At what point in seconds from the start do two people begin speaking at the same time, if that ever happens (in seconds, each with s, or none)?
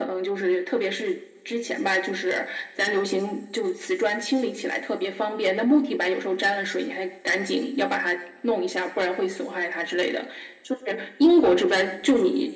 none